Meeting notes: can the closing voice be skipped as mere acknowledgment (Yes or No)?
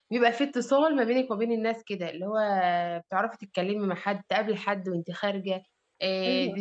Yes